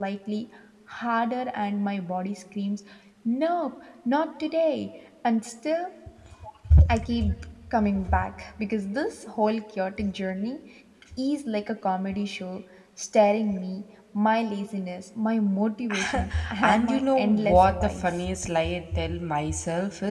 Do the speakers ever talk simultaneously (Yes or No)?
Yes